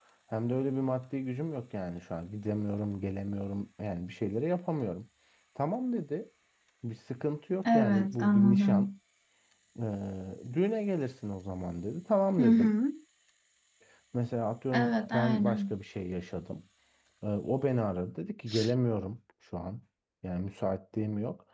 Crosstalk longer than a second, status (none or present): present